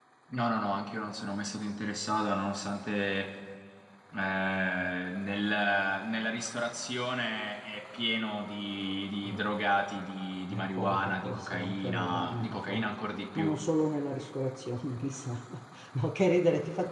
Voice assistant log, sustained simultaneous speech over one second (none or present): present